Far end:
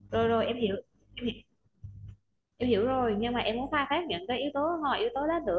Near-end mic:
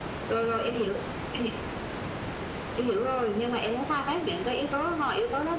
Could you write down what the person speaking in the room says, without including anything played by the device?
none

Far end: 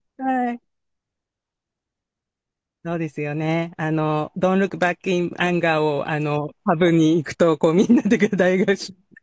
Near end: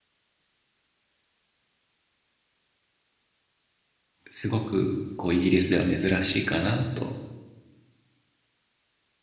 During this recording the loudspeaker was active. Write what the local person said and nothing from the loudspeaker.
すごくこうイギリスでは珍しいかなと

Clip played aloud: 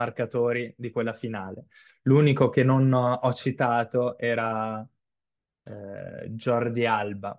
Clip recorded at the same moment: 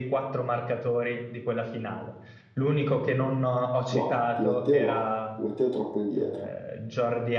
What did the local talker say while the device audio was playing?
no, Di Matteo no, Di Matteo è troppo indietro.

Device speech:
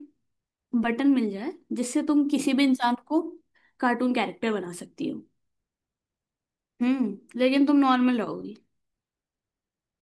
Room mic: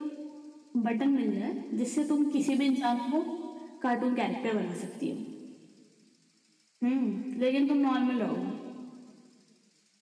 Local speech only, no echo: none

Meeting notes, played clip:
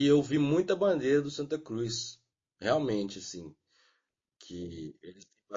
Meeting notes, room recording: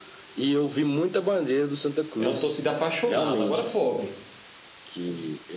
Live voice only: É uma torcida apaixonada, agora pobre.

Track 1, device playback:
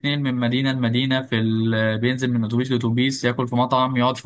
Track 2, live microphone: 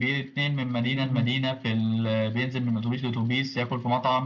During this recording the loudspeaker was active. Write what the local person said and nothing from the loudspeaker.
مم.

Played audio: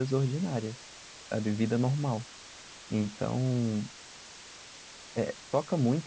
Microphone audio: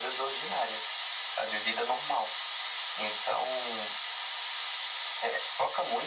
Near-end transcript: none

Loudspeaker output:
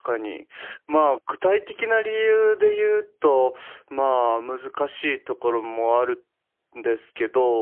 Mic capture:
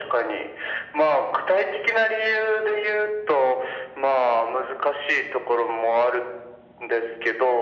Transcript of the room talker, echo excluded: none

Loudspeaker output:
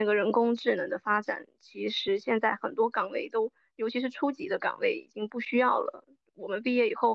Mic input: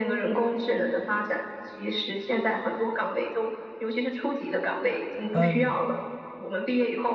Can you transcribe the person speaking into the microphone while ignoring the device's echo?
嗯，

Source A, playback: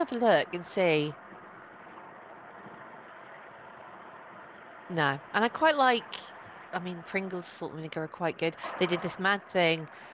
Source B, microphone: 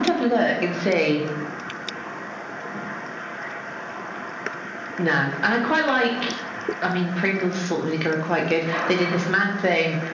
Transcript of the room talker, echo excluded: none

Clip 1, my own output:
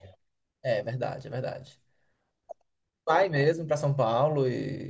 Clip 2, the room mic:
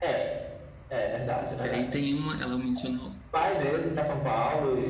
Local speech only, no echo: Que aí tem uma, ela mencionou

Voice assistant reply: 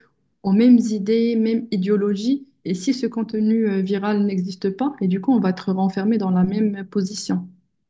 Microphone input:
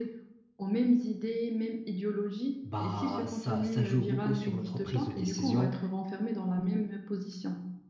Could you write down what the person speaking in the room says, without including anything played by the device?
bah ça, ça joue beaucoup sur notre prise de décision.

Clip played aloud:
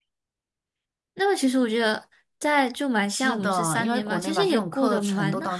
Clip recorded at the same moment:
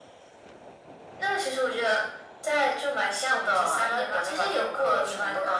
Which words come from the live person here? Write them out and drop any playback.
none

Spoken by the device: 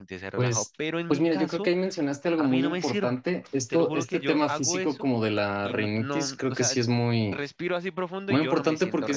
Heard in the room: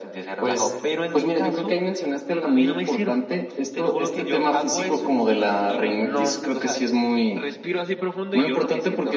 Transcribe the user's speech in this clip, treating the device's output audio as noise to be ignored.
none

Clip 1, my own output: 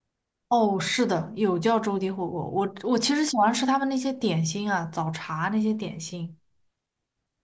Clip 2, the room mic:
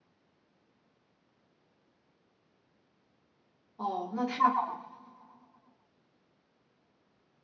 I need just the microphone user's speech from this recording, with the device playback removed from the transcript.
哦，那太好了。

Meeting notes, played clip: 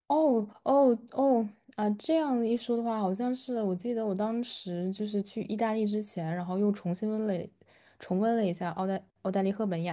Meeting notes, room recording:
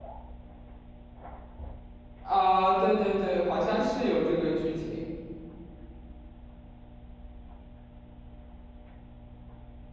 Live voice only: 啊、对对对，好像是有这个剧情。

